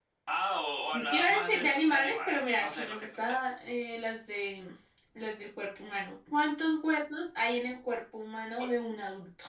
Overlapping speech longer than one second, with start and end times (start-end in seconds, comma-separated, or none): 1.0-3.4